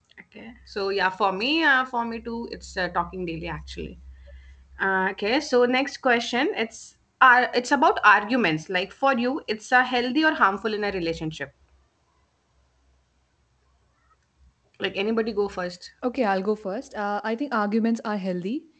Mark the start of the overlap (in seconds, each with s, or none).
none